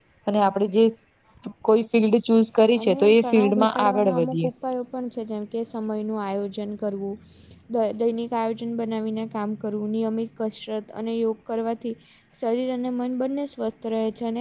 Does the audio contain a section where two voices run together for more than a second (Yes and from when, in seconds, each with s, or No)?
Yes, from 2.8 s